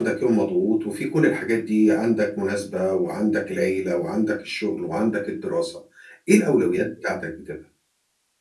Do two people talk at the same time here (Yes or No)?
No